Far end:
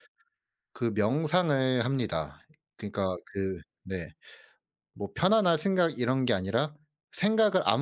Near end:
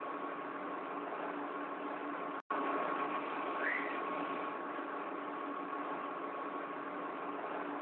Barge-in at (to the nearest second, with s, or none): none